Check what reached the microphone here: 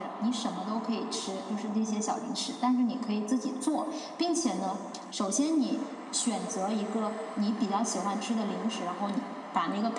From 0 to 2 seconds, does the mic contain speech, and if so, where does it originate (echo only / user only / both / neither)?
echo only